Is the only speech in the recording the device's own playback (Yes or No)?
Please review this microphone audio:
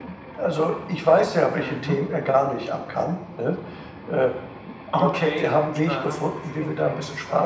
Yes